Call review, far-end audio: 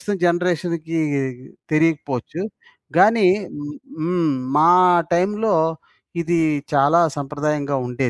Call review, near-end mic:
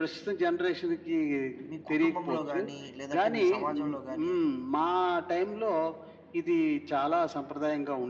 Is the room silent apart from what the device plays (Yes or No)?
No